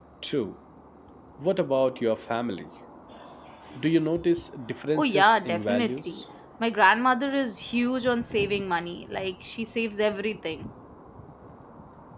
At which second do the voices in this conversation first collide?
5.0 s

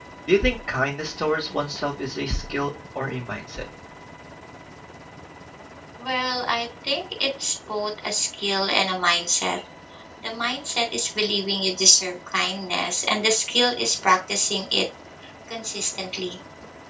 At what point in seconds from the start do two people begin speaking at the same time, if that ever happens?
none

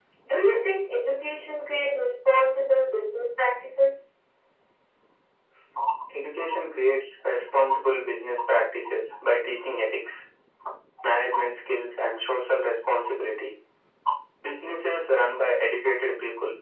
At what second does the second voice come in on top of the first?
none

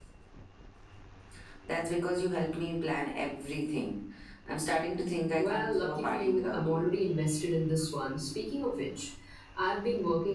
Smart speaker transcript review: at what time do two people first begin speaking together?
5.4 s

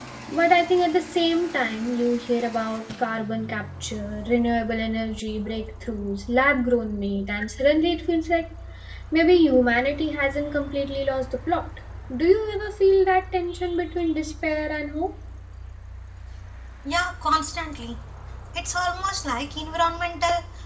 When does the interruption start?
none

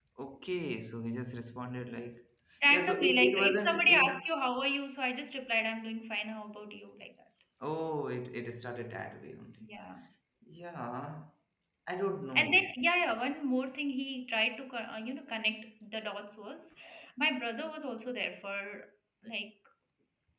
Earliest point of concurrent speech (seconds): 2.7 s

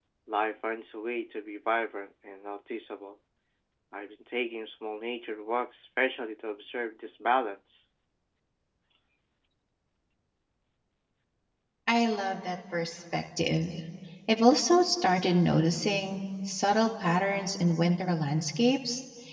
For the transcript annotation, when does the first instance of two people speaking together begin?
none

